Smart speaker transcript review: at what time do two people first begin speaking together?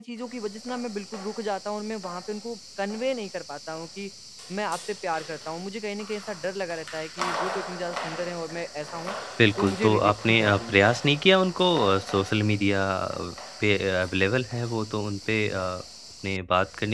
9.6 s

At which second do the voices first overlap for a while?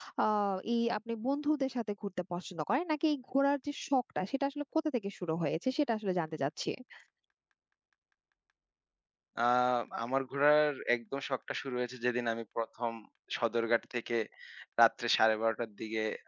none

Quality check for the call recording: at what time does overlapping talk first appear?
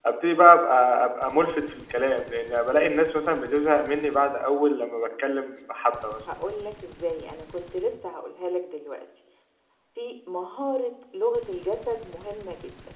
none

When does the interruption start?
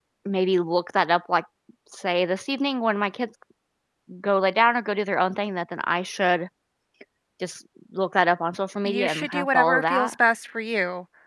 8.8 s

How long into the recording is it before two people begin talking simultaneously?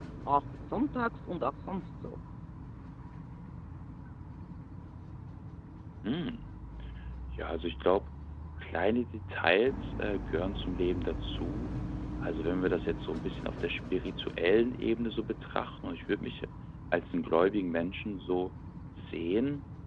none

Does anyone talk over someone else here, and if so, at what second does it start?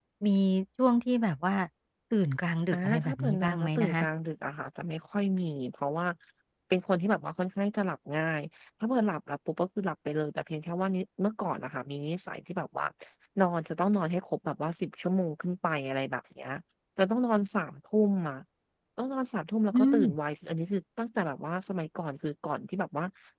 2.7 s

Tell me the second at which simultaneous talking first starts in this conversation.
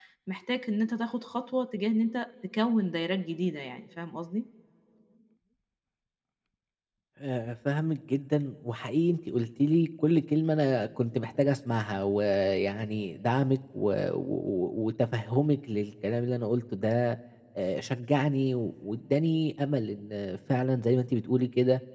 none

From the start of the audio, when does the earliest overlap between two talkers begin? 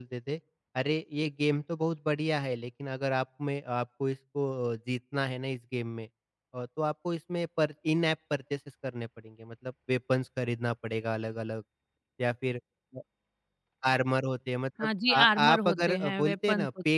14.8 s

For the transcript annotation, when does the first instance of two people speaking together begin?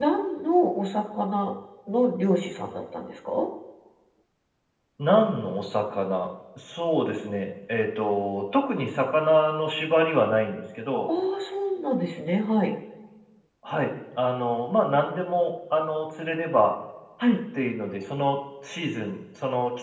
none

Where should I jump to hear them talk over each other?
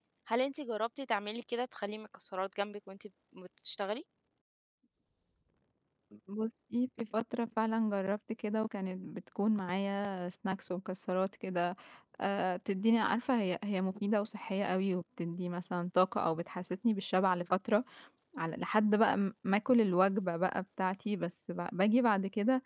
none

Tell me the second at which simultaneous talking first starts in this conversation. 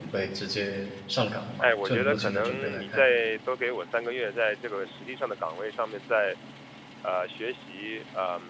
1.6 s

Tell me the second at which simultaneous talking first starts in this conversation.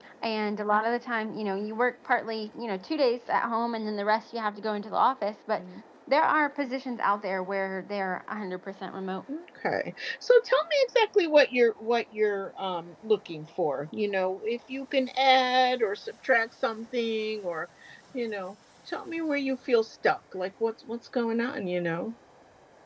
none

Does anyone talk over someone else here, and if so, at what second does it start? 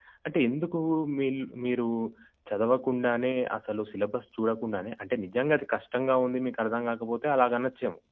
none

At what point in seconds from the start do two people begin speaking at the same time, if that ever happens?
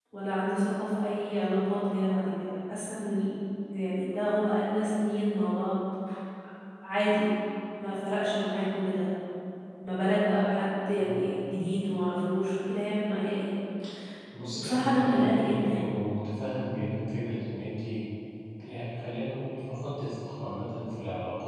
14.5 s

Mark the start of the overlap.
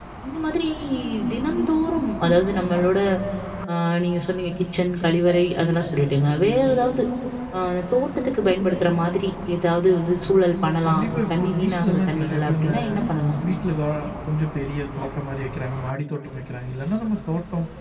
10.8 s

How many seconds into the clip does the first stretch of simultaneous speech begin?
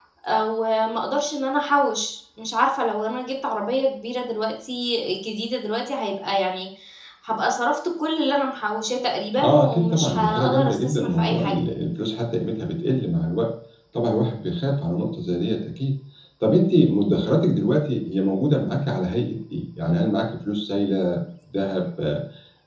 9.3 s

